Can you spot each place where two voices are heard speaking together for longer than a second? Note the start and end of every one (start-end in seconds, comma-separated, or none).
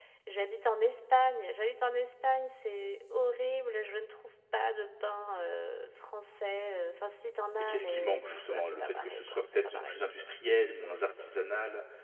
7.6-10.0